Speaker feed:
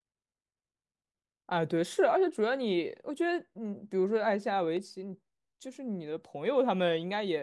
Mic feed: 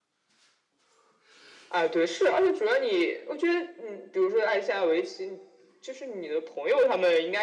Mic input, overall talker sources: echo only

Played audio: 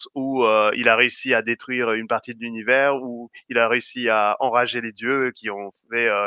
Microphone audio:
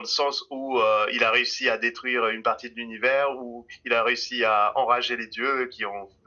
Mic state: echo only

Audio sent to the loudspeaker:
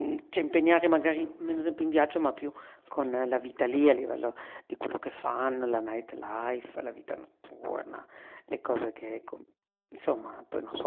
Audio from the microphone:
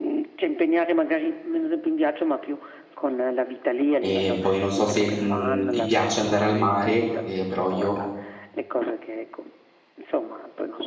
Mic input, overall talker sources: both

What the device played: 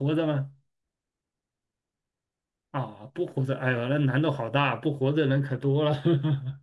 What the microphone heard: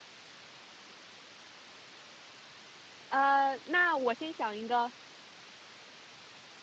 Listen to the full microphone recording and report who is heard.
user only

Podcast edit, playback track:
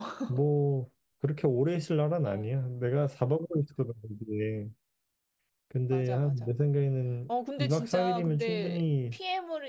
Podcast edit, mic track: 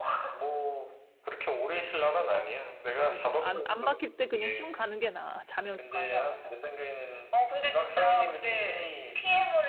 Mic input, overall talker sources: both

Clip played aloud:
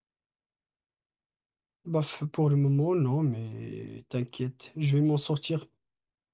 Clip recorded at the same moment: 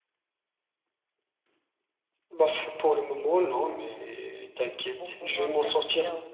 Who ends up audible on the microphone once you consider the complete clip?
both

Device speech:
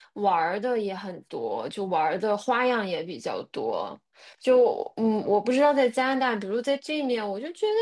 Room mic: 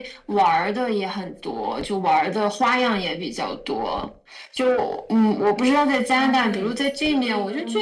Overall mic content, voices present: both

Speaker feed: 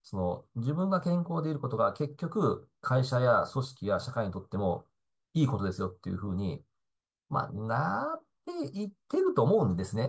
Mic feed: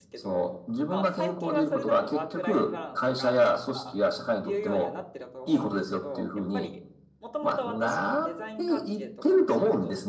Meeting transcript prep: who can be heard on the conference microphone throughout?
both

